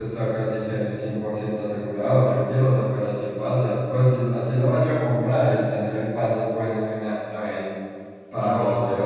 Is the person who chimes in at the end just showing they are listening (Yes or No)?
Yes